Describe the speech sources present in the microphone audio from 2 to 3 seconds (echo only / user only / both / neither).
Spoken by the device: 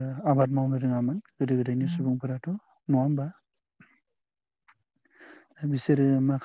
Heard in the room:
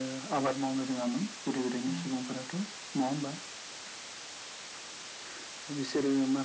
echo only